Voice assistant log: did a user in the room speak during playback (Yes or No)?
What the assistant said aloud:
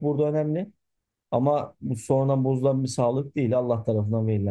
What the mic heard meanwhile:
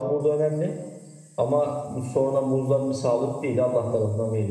No